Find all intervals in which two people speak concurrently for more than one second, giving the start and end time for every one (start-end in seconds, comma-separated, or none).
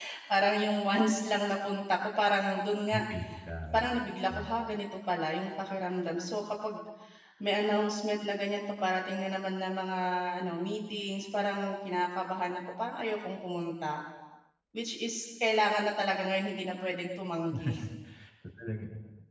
none